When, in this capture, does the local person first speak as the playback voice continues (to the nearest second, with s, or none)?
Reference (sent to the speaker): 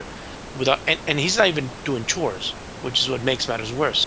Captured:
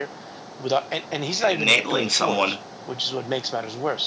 1 s